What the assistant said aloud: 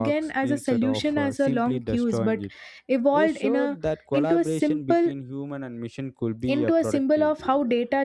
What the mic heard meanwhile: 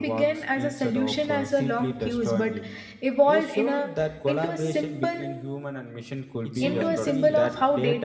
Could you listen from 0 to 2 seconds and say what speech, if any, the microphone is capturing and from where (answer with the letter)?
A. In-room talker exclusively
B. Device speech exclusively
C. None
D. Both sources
B